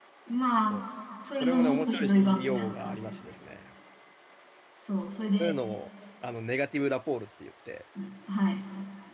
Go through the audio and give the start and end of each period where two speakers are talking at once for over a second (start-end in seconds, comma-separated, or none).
1.4-3.1